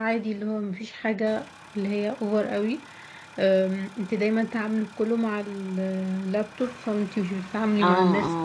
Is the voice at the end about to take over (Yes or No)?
Yes